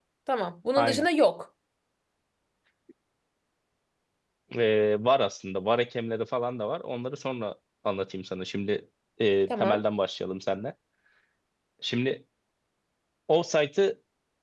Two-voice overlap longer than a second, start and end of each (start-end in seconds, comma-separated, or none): none